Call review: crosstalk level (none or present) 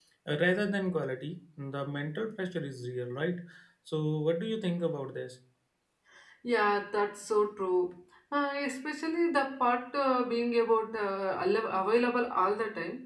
none